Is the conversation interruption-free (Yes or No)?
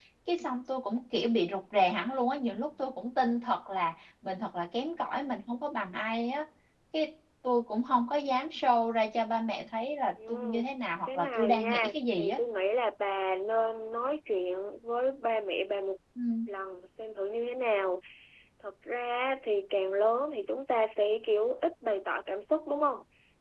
No